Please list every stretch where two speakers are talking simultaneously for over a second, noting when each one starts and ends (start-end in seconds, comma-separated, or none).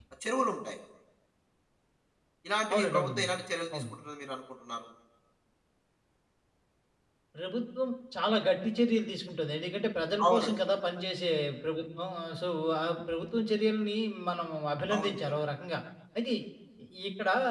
none